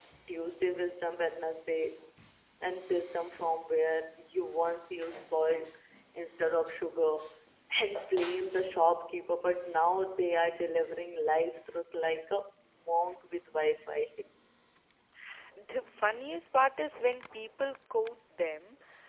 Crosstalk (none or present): none